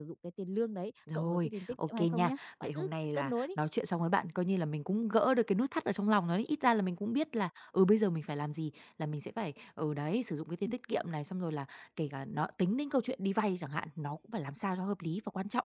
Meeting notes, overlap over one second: present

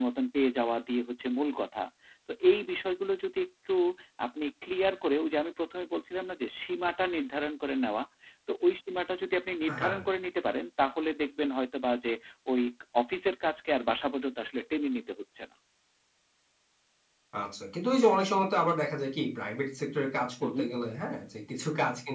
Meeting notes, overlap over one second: none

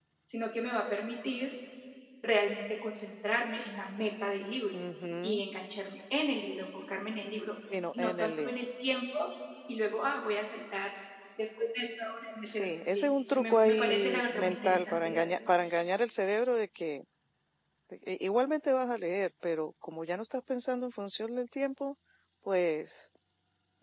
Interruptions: present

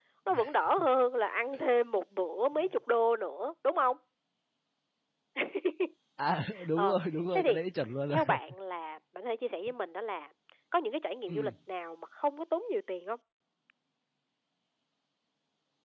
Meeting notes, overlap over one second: none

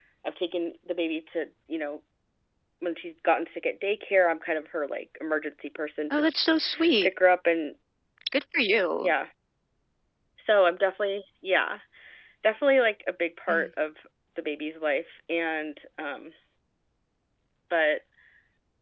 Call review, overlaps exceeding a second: none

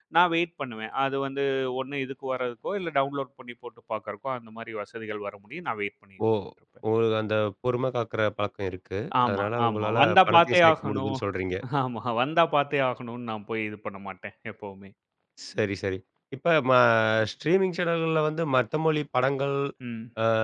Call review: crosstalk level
present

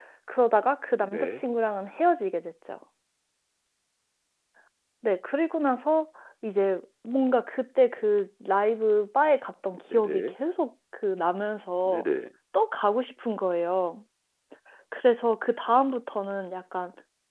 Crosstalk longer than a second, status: none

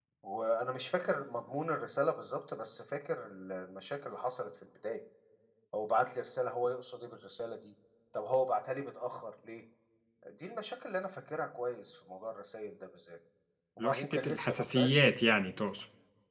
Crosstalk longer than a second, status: present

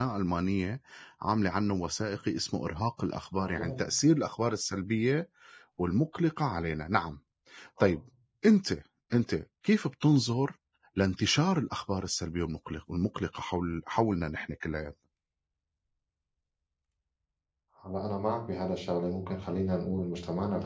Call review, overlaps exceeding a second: none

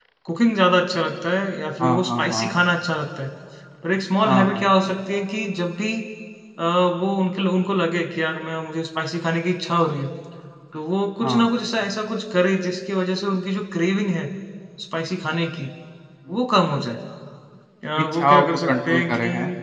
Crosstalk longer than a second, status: present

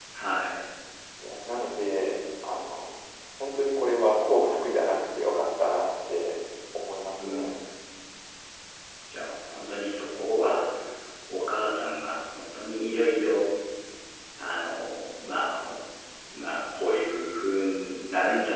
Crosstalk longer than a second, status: none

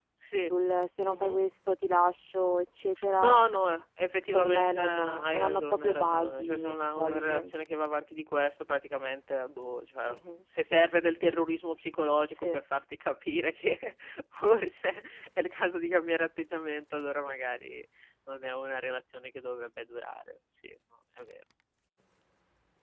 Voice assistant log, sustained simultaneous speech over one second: present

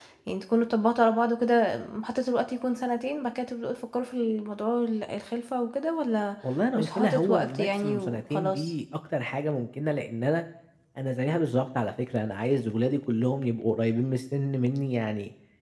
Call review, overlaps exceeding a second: present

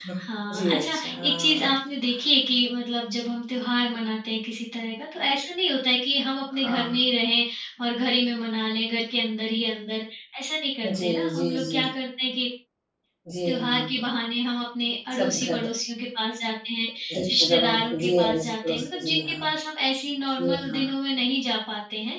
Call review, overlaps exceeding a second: present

